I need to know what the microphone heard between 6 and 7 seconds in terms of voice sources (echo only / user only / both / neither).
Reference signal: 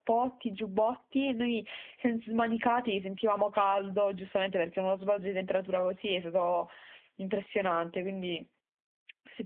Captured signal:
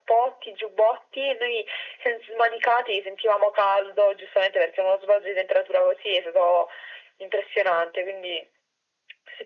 echo only